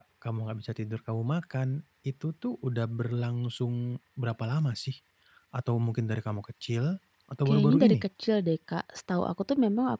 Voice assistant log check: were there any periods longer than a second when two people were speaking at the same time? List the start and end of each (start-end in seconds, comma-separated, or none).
none